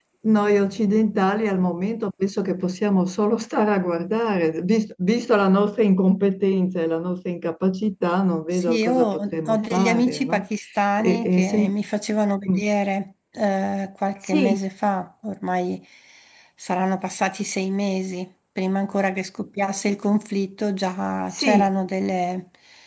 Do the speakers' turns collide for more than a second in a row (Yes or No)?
Yes